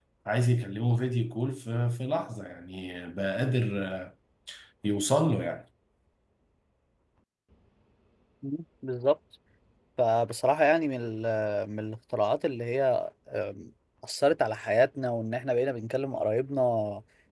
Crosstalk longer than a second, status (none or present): none